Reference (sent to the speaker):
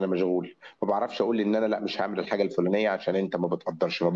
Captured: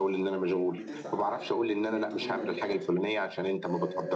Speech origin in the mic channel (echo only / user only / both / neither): both